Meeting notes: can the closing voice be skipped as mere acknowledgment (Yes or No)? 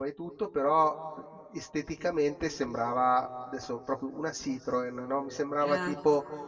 Yes